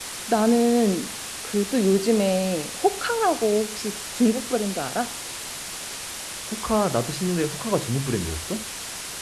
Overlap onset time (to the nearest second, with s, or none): none